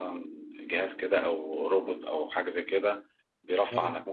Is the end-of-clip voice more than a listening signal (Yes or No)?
No